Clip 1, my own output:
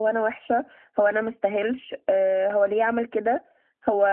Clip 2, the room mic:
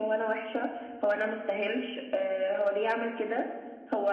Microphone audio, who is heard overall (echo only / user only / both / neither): echo only